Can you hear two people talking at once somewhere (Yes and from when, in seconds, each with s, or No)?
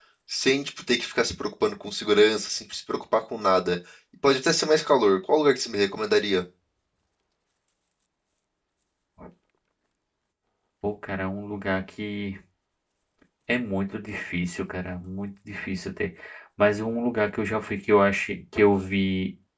No